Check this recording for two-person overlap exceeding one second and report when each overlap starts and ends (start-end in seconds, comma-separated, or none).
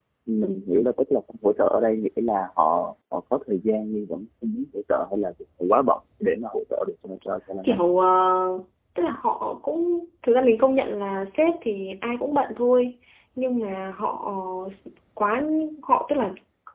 none